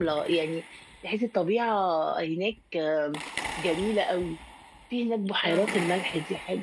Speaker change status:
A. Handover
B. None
B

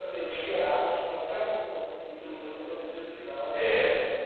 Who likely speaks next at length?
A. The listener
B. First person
B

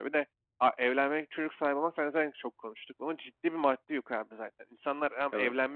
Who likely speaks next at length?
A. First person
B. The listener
A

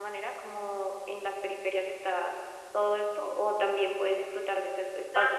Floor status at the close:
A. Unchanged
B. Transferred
A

